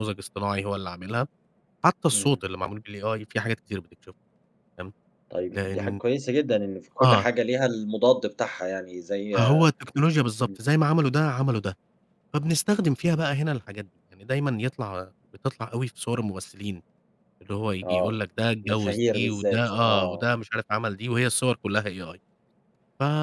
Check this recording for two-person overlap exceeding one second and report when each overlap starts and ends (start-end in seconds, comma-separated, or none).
18.6-20.2